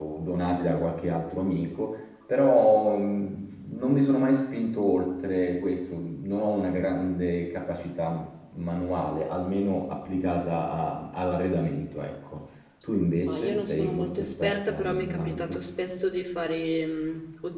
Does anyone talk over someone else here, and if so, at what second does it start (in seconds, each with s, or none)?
13.3 s